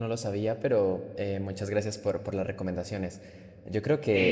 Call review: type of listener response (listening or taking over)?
taking over